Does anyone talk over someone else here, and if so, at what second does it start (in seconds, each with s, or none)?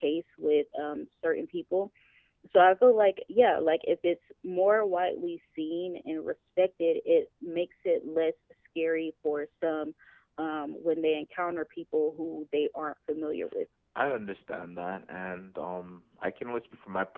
none